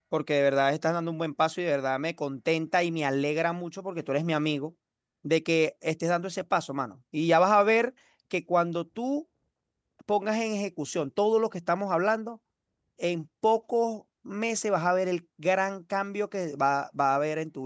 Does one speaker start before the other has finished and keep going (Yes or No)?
No